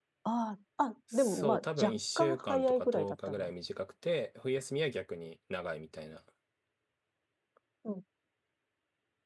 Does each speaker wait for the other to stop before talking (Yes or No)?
No